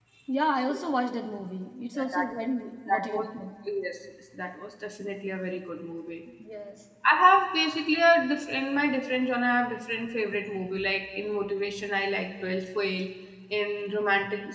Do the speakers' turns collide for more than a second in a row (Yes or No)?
No